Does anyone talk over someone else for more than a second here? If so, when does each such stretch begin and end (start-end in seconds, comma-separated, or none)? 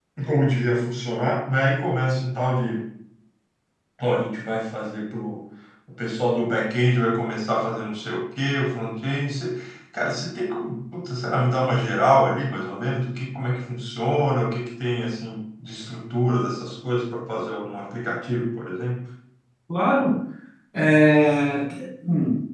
none